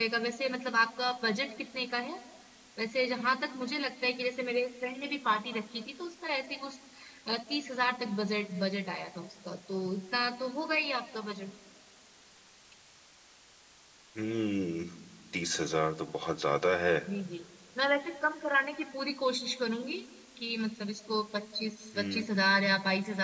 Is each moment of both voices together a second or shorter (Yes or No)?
Yes